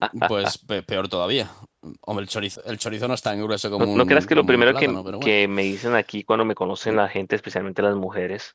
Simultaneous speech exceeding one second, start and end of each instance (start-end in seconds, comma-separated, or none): 3.8-5.3